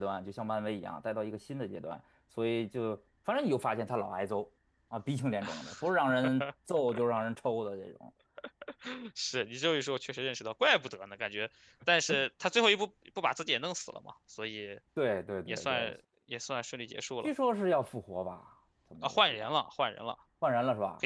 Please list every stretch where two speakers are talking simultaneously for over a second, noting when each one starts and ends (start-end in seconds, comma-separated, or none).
none